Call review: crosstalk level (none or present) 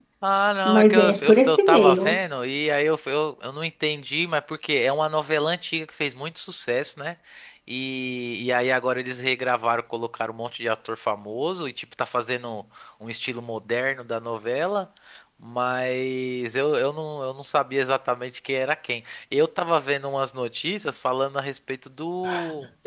present